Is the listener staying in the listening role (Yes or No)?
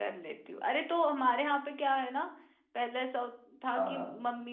Yes